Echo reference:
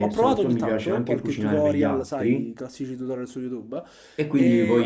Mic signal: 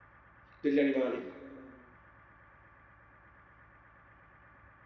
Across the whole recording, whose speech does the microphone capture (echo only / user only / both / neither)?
user only